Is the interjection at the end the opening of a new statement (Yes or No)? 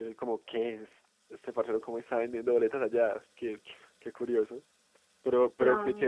No